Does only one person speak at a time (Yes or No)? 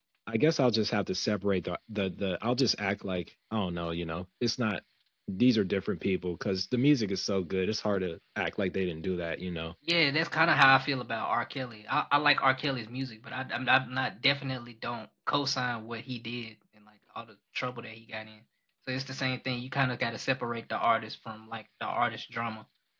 Yes